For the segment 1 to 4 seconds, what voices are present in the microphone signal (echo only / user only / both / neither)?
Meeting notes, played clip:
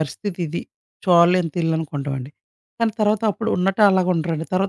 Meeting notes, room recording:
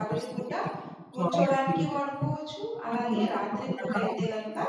both